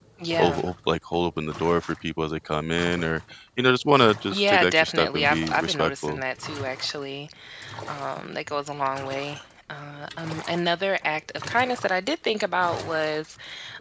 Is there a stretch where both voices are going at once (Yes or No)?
Yes